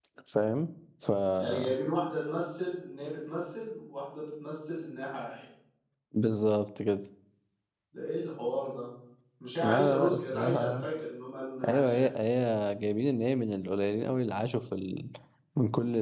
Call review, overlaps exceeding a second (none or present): present